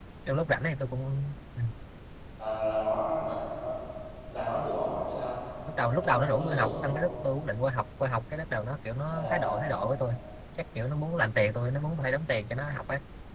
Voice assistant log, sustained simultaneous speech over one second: present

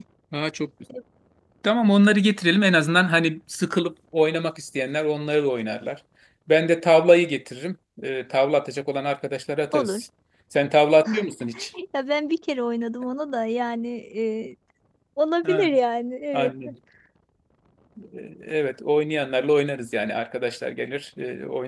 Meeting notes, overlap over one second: none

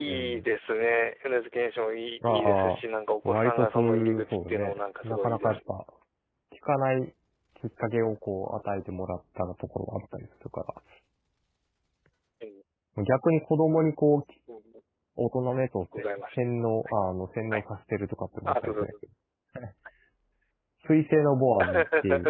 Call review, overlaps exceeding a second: present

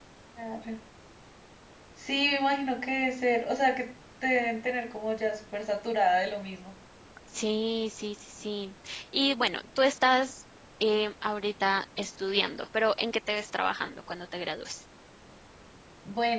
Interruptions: none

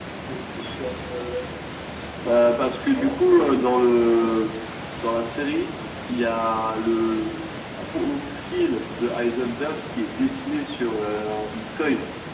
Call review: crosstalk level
present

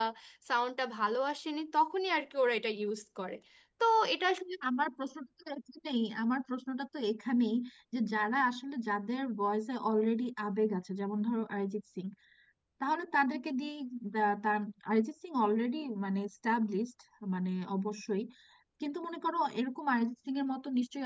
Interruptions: none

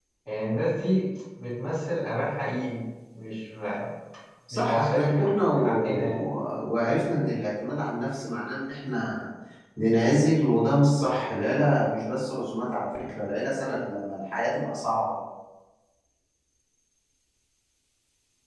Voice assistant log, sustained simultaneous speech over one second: present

